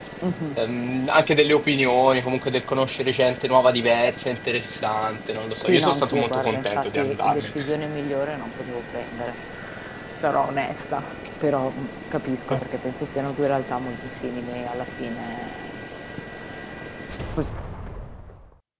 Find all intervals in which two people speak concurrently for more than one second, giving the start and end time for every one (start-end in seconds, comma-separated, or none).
5.6-7.5